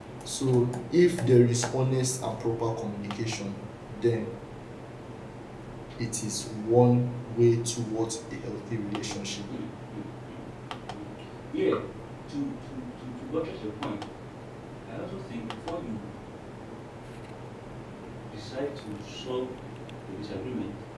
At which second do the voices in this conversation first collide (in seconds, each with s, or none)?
none